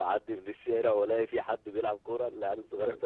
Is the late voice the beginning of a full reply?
No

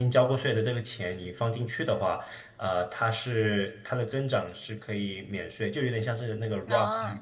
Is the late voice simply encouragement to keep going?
Yes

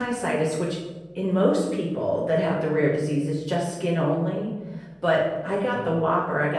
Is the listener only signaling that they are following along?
Yes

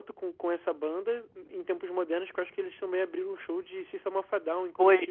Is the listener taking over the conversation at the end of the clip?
Yes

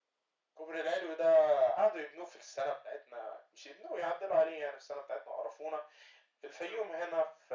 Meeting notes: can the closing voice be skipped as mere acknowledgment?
Yes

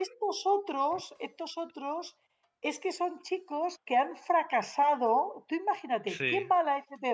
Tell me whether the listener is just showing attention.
Yes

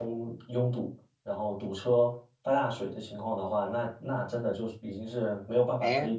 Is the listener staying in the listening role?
No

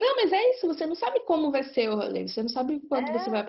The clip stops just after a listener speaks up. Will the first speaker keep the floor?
Yes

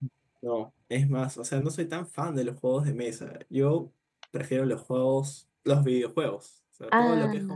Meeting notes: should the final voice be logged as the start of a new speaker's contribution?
No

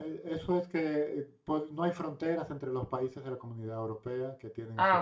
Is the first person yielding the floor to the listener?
No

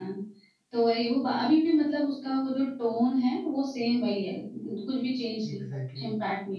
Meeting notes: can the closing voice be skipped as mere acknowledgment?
No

